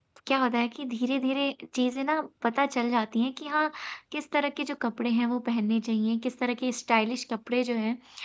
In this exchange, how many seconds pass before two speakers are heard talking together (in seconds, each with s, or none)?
none